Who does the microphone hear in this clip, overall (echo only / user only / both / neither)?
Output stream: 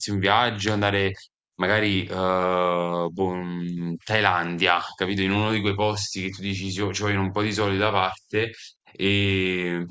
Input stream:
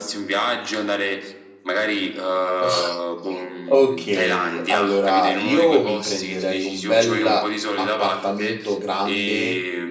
both